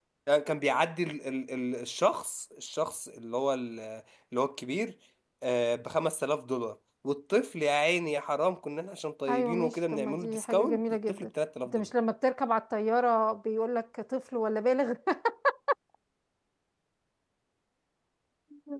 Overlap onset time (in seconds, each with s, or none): 9.3 s